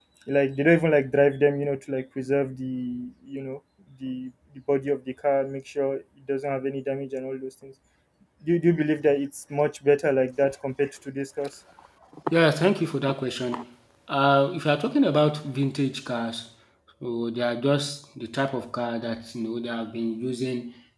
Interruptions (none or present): none